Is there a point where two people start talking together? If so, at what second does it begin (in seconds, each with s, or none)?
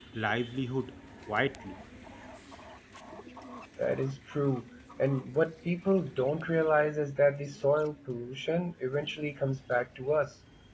none